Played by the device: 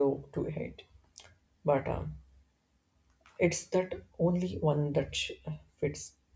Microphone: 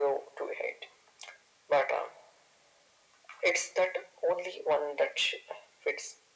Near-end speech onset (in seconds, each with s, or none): none